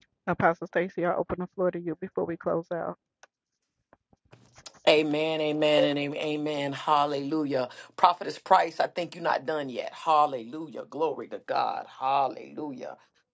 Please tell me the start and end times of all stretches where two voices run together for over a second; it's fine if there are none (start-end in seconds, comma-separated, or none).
none